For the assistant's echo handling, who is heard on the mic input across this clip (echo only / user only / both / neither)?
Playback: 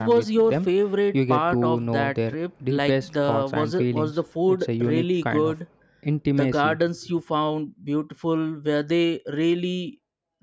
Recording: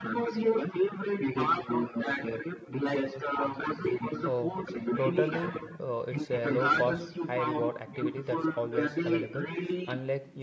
both